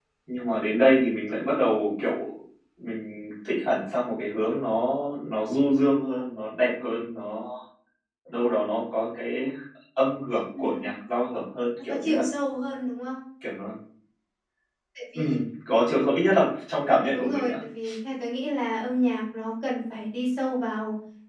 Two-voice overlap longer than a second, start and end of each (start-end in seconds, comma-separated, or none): none